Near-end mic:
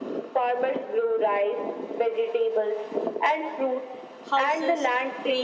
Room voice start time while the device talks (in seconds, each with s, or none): 4.3 s